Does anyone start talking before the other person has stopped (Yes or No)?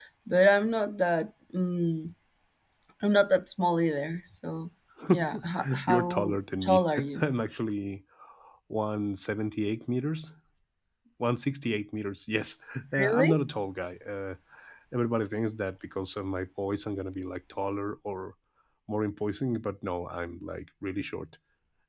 Yes